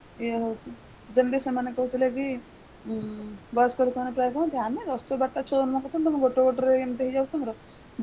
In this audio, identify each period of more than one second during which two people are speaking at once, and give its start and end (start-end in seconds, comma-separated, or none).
none